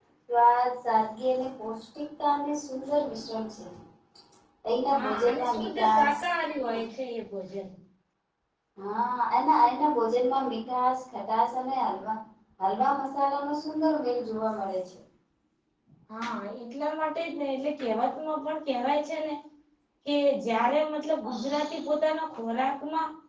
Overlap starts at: 4.9 s

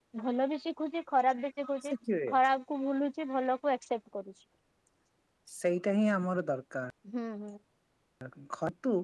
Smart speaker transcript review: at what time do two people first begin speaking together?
none

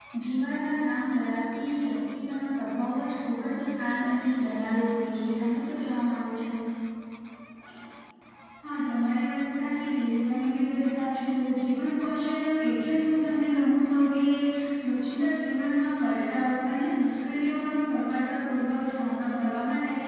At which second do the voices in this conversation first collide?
none

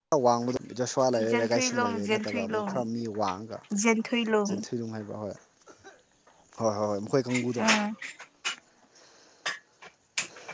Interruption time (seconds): 1.3 s

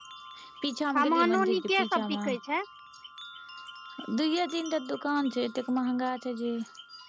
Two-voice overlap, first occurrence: 0.9 s

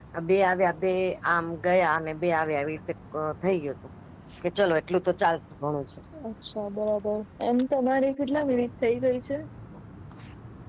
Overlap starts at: none

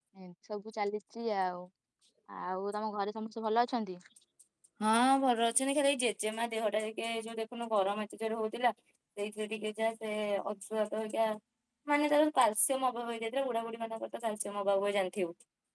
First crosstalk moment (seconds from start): none

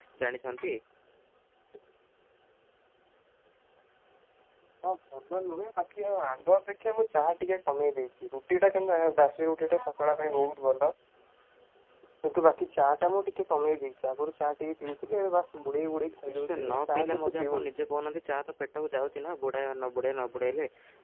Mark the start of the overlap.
16.2 s

